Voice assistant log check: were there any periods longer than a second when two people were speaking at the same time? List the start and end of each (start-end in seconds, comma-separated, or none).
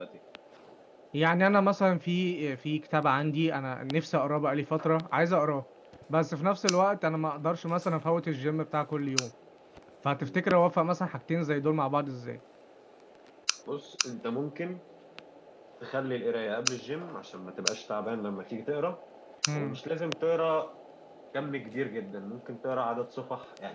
none